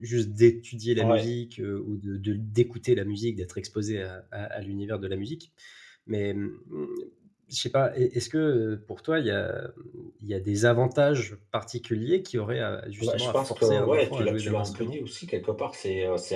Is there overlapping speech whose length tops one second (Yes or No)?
Yes